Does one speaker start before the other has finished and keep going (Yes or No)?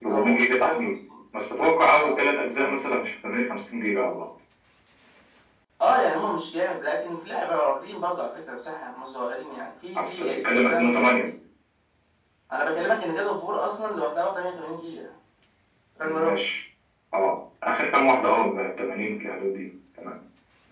Yes